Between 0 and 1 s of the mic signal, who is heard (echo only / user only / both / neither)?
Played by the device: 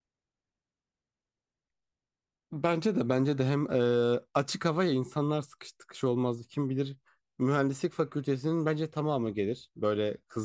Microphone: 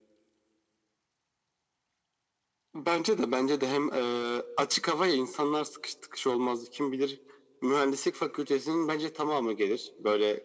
neither